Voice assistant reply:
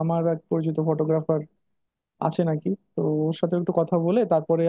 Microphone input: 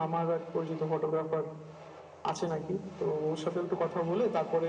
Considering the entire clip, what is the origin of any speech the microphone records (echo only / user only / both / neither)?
echo only